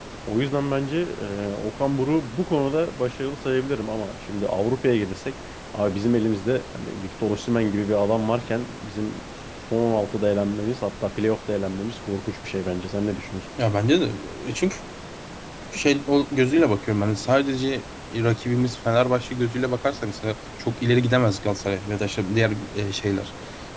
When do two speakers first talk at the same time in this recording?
none

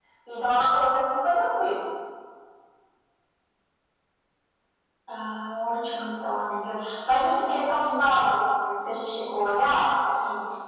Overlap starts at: none

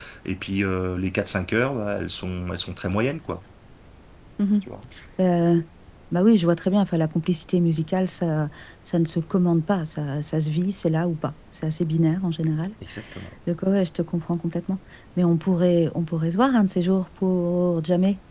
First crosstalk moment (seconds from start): none

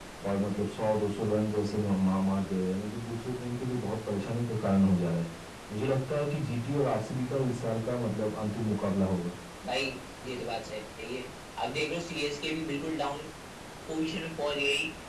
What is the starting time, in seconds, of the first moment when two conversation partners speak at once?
none

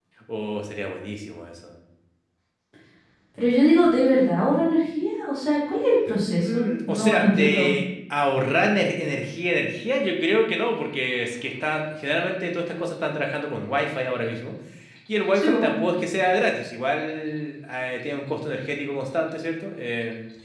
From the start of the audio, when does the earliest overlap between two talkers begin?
6 s

